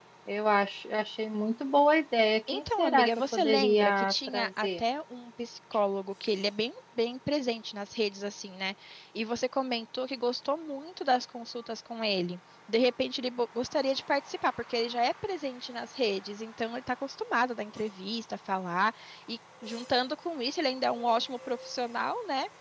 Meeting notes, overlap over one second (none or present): present